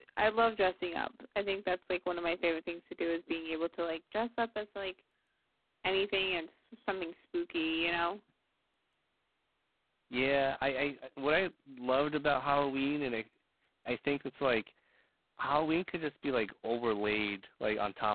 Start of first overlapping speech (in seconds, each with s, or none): none